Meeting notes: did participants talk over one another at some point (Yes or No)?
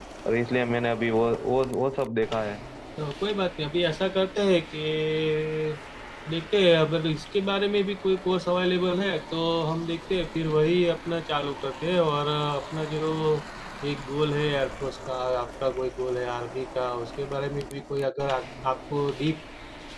No